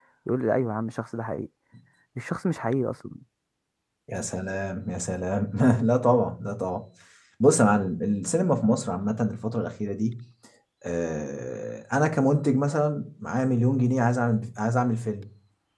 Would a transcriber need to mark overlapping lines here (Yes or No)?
No